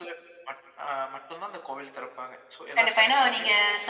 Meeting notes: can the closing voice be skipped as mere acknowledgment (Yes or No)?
No